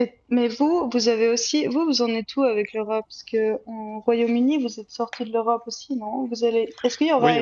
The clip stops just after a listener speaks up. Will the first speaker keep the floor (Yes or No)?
Yes